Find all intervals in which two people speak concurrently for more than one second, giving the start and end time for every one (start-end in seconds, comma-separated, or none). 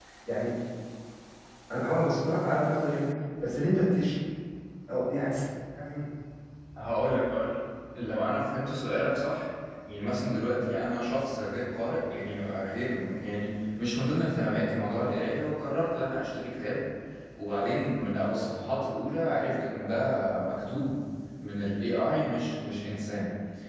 none